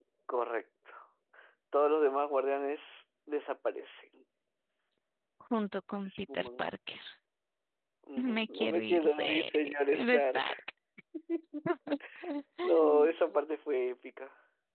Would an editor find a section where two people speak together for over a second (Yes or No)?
Yes